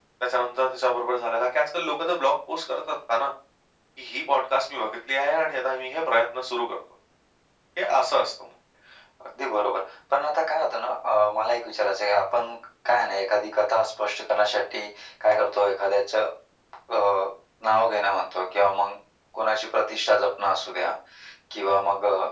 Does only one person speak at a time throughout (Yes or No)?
Yes